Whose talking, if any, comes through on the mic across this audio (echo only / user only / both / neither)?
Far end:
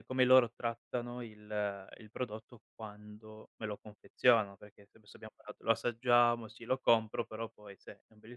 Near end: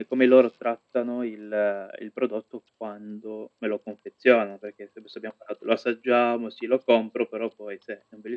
echo only